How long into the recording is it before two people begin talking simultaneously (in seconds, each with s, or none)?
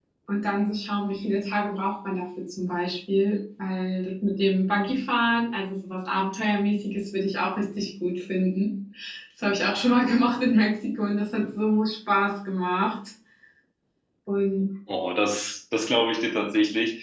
none